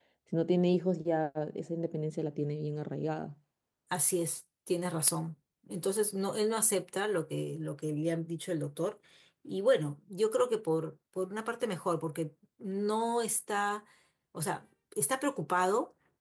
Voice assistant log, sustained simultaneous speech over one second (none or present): none